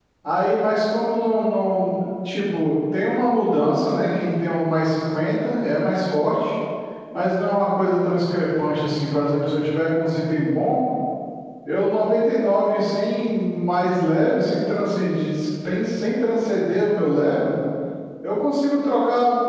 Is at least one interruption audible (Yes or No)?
No